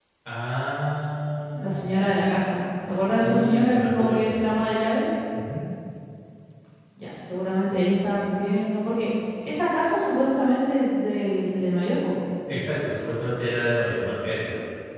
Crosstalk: present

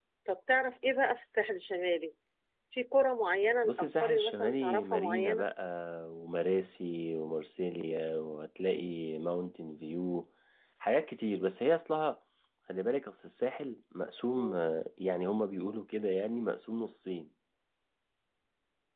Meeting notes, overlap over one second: present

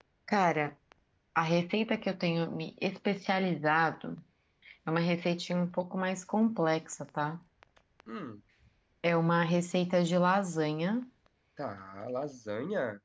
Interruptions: none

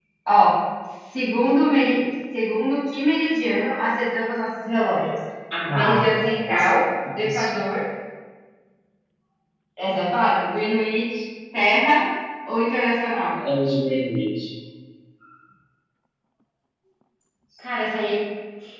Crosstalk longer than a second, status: none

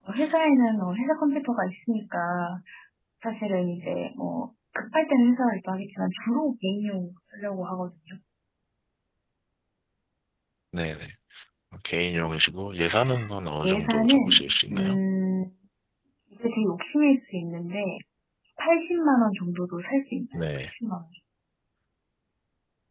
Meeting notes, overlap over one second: present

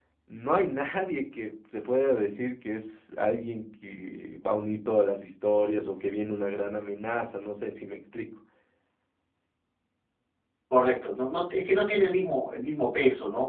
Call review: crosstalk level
none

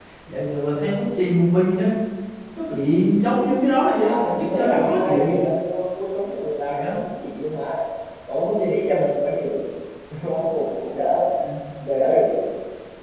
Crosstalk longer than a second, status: present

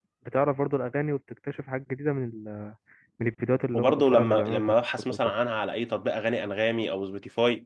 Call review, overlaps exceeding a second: present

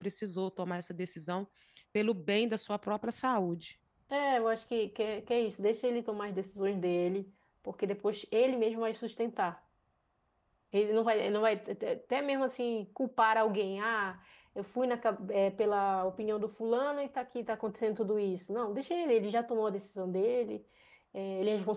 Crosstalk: none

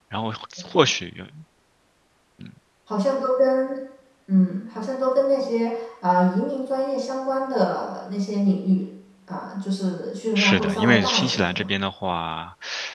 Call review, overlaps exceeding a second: present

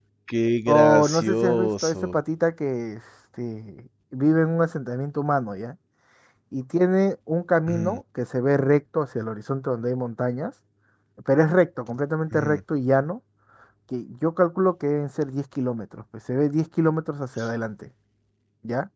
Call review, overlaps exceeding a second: present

